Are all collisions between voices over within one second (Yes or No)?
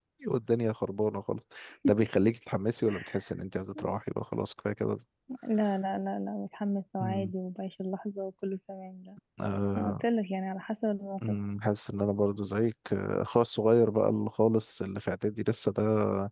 Yes